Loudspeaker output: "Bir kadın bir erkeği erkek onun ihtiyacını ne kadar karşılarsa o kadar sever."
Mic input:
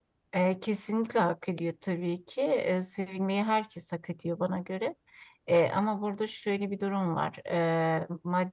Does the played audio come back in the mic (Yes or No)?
No